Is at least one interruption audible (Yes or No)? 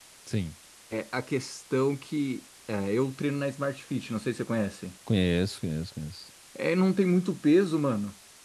No